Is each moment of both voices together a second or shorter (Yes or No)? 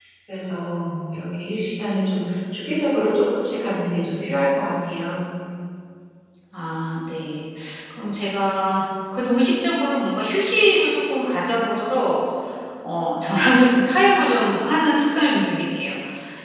Yes